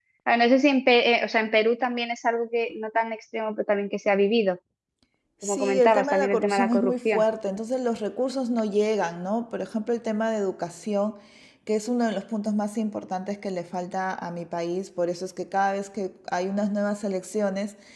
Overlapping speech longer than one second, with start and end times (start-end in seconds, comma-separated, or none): 5.4-7.2